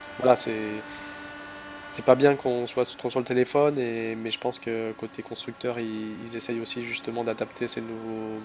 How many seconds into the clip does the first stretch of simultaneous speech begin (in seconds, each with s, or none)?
none